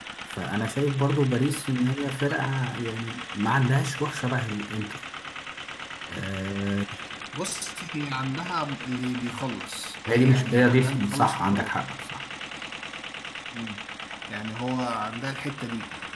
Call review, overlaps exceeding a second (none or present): present